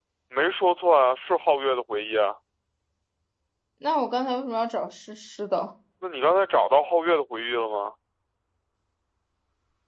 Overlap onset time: none

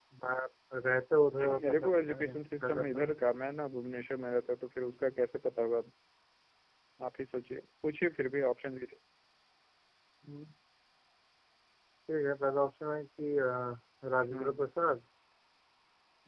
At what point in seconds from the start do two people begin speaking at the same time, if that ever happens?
1.4 s

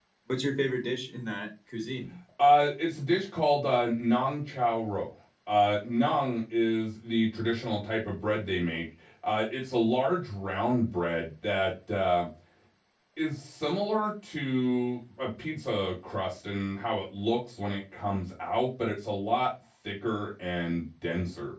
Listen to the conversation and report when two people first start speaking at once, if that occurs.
none

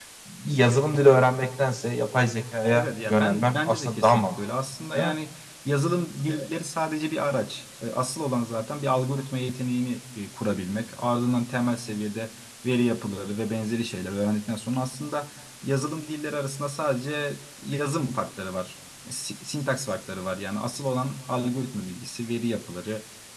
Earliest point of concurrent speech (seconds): 2.7 s

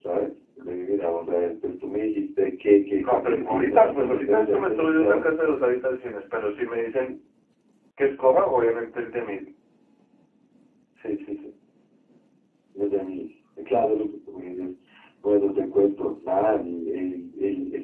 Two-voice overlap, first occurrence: 3.0 s

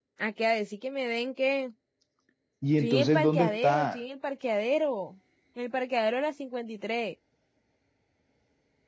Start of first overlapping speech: 2.8 s

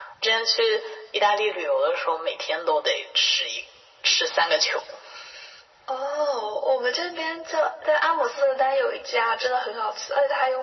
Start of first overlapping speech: none

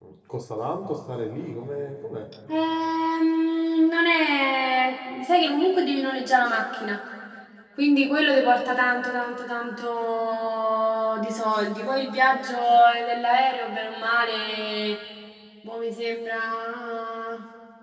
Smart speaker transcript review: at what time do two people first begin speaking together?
none

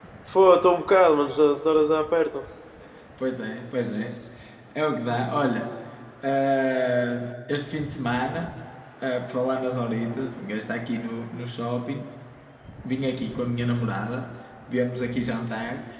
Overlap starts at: none

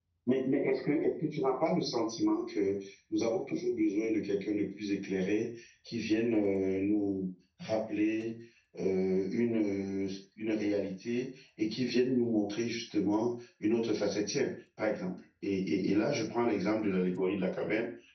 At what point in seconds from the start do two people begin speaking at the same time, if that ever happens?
none

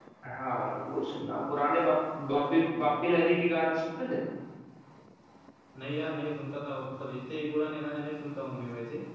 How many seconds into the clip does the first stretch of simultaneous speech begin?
none

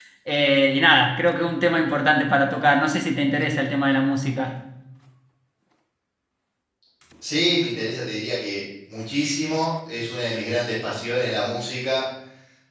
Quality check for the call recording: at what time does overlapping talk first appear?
none

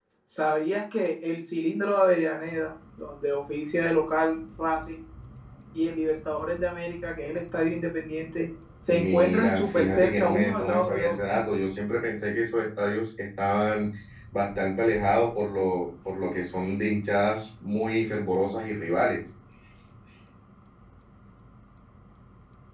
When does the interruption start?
8.9 s

